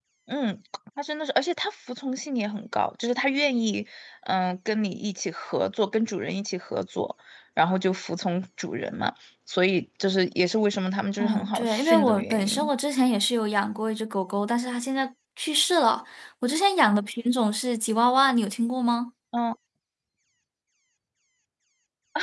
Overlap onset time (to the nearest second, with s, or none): 11 s